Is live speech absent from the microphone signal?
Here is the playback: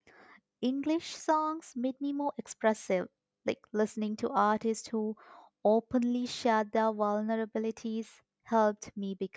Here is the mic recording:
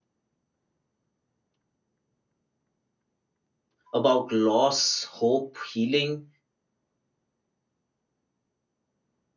No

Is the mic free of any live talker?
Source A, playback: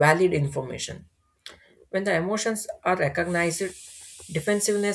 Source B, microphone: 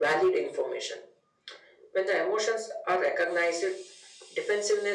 Yes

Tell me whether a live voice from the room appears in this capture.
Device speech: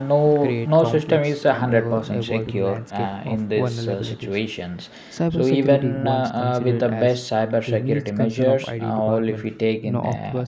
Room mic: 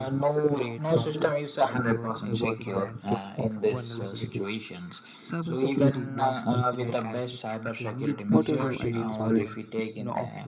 Yes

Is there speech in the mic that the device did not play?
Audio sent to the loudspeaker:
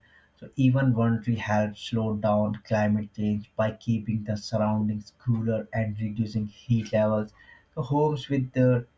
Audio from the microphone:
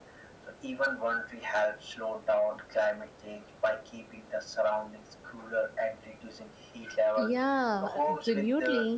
Yes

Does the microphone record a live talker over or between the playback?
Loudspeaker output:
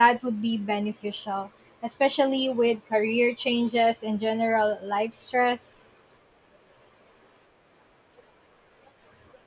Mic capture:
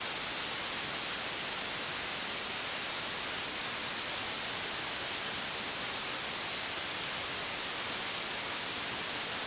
No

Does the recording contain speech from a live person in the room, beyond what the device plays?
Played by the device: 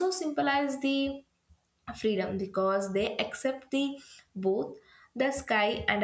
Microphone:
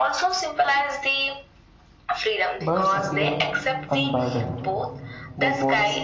Yes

